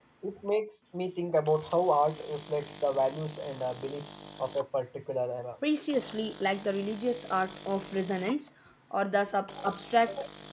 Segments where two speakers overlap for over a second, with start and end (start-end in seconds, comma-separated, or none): none